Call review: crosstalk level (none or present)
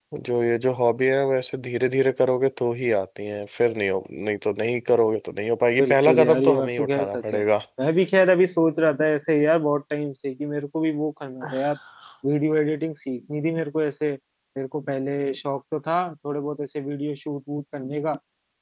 present